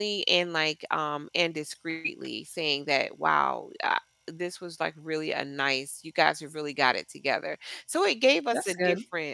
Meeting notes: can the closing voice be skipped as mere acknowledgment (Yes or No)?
Yes